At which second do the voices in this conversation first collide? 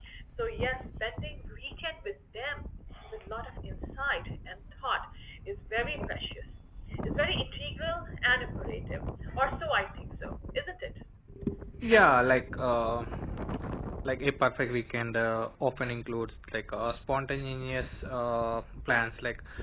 none

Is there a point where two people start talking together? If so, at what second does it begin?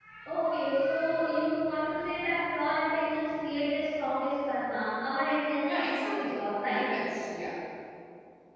6 s

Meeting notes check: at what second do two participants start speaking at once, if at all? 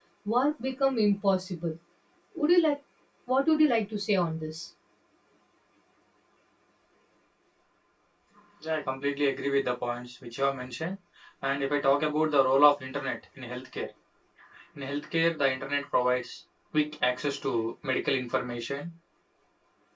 none

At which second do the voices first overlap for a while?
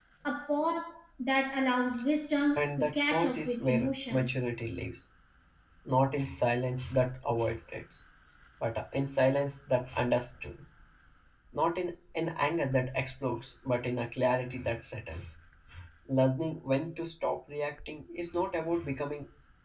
3 s

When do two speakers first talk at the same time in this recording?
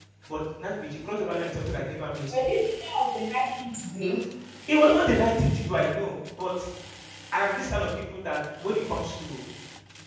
none

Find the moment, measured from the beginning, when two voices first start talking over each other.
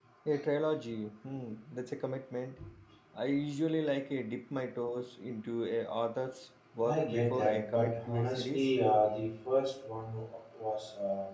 7 s

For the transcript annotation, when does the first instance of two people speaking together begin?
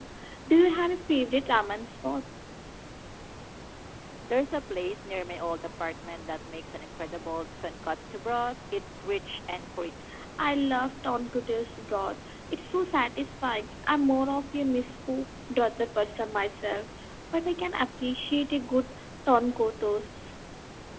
none

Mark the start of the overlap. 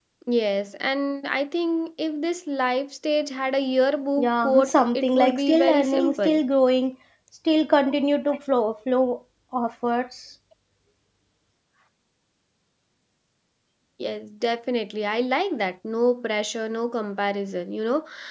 4 s

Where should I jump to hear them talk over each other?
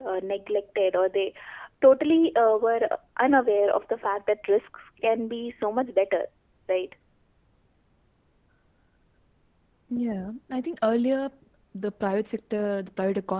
none

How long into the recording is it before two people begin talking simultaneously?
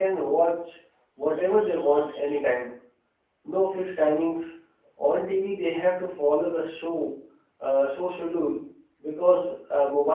none

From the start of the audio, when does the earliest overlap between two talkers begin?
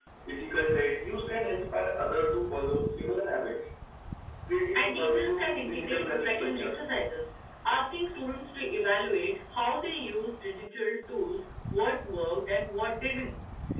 5 s

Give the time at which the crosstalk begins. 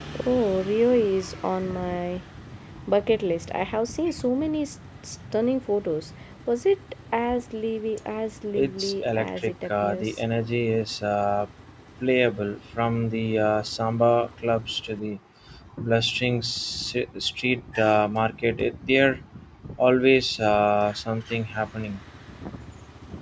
9 s

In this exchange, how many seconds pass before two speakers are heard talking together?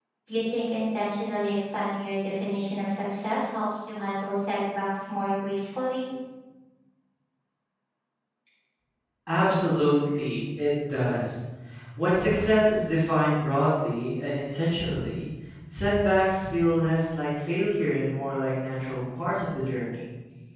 none

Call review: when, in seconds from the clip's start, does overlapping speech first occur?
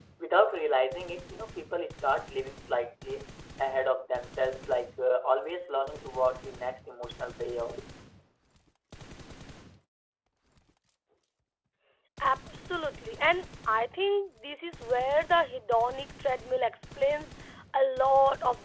none

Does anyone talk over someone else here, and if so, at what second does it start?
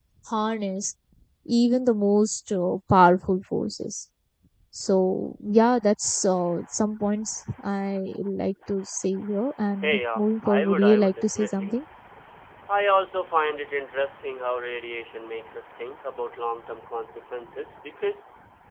10 s

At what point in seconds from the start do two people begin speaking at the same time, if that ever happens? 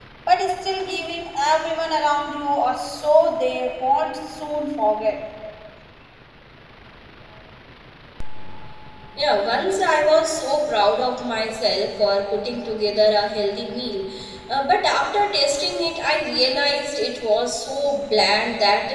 none

